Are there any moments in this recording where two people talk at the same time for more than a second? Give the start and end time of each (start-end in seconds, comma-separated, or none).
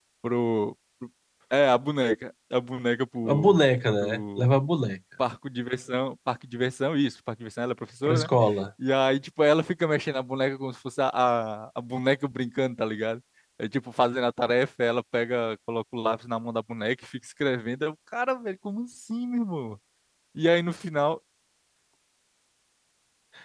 none